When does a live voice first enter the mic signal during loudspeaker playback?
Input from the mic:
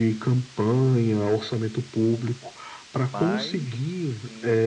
3 s

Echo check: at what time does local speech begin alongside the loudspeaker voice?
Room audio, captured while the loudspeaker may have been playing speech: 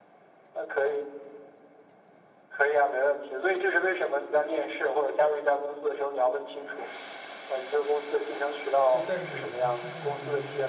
9 s

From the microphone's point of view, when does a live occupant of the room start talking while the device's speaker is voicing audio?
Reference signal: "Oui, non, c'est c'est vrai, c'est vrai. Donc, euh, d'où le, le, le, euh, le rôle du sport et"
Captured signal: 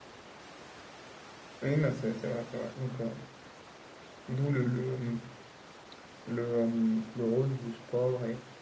none

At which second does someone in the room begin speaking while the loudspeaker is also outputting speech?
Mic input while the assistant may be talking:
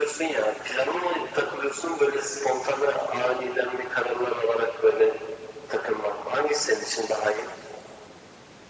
none

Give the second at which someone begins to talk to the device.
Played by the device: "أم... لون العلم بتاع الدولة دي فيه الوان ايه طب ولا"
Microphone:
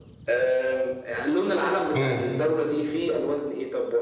2 s

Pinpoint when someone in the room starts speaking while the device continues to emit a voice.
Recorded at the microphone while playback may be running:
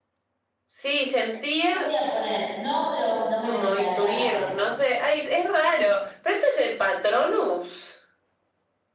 2 s

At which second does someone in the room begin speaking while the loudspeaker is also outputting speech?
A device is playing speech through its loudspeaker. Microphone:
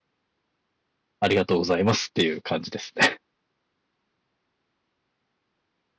1 s

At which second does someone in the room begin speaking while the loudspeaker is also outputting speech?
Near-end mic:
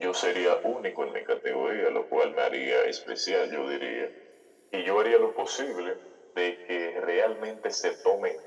none

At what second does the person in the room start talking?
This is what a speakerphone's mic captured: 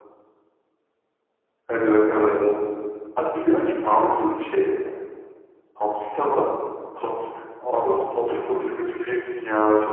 none

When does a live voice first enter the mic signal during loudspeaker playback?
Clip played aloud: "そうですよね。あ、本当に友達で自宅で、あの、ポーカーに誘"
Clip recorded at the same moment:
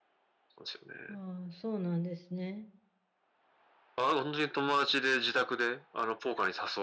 1 s

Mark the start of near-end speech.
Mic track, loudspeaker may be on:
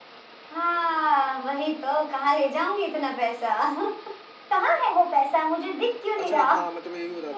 6 s

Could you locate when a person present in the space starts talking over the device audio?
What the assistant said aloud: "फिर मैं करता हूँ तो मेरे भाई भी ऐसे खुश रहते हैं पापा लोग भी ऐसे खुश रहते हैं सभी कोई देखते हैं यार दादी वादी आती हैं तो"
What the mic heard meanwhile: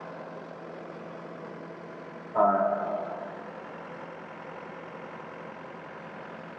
2 s

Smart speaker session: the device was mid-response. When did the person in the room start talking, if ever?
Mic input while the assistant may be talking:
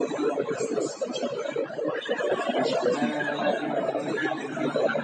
3 s

